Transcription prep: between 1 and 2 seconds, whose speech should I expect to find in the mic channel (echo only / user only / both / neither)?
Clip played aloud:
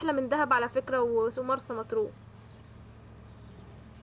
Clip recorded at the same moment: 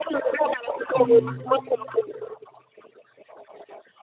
both